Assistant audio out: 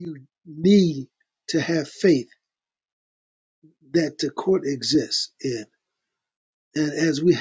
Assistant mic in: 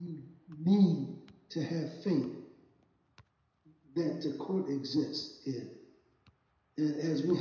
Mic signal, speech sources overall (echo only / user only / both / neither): echo only